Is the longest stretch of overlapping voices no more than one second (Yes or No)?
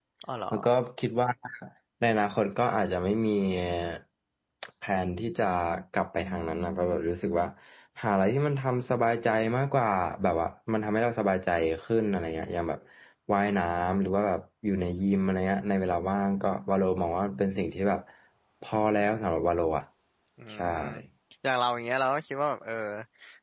Yes